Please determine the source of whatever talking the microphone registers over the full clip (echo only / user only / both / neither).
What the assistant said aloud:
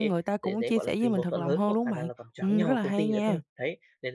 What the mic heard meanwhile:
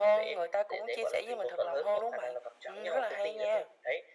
echo only